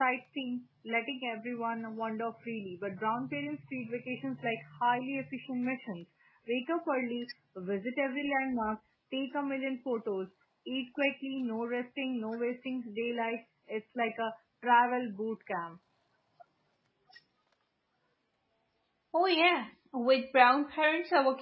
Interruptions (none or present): none